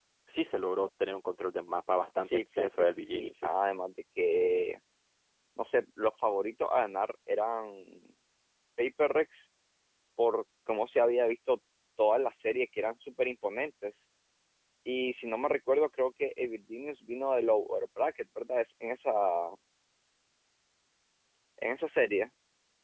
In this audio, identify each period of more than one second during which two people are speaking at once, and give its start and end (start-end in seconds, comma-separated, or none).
2.2-3.5